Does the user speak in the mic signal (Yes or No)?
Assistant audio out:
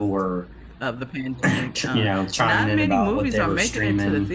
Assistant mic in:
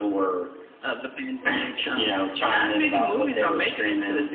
No